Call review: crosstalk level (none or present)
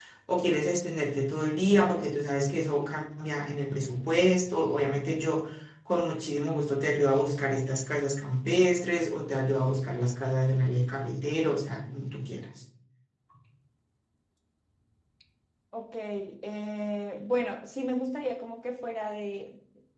none